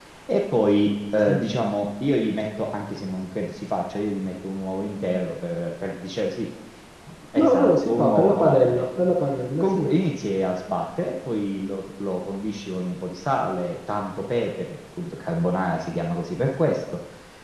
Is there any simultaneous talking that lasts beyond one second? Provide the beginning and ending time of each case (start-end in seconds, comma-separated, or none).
7.4-9.0